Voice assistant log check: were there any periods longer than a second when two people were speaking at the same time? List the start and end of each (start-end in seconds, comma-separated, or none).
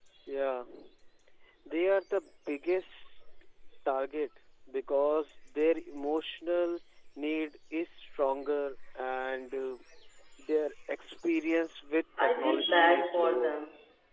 12.2-13.5